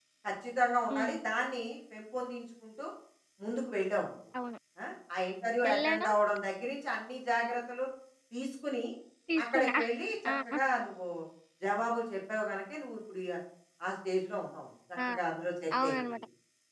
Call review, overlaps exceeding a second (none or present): none